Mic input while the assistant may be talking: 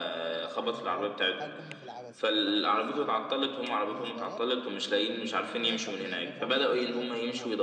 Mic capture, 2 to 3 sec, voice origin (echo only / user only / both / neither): both